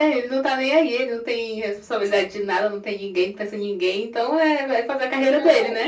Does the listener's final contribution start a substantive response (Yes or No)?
Yes